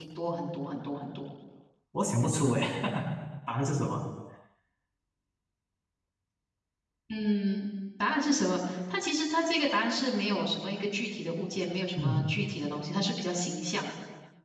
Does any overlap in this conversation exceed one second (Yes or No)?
No